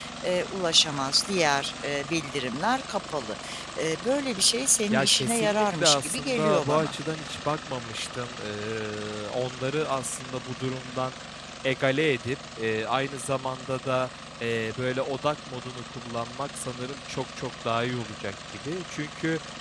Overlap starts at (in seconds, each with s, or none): 4.9 s